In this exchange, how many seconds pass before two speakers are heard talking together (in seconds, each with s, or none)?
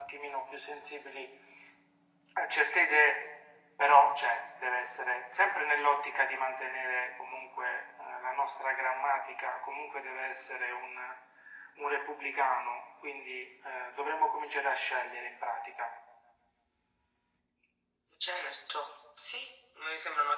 none